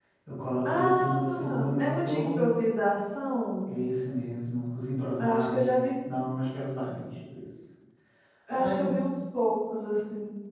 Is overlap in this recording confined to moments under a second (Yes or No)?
No